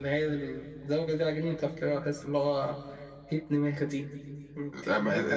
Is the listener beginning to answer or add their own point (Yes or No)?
Yes